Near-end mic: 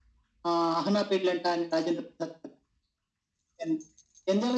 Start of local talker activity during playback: none

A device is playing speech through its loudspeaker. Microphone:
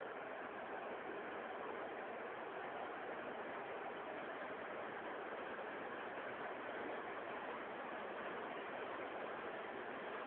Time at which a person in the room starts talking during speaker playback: none

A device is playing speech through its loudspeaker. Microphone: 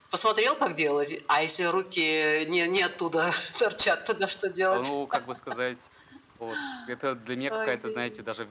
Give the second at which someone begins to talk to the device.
4.7 s

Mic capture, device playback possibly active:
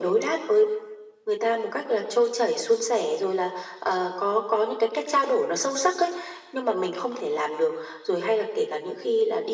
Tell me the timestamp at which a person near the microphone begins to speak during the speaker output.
none

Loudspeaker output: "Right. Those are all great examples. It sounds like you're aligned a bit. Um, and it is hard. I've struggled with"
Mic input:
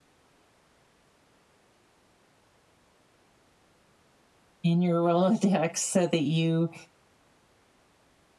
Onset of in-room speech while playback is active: 4.6 s

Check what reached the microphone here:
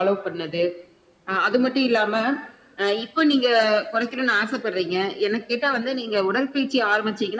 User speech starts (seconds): none

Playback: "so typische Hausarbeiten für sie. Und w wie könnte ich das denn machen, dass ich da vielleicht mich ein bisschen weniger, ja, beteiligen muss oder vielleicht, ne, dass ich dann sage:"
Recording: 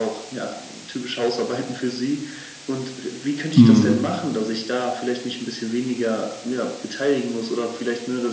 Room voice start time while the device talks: 3.6 s

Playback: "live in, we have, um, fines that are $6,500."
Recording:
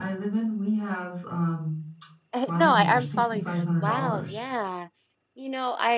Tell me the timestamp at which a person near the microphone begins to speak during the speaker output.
2.3 s

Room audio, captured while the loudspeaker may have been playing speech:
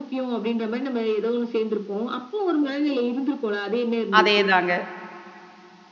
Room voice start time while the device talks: 4.2 s

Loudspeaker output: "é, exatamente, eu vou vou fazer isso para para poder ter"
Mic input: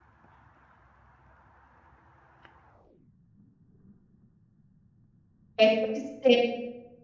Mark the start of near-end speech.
5.6 s

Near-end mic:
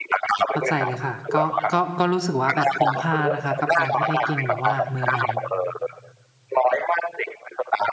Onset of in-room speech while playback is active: 0.5 s

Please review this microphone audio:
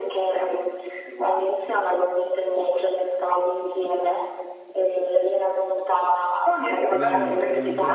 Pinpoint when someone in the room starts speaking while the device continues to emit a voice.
7.0 s

